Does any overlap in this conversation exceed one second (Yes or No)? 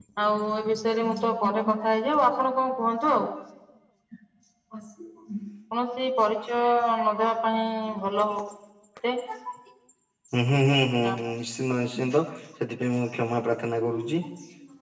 No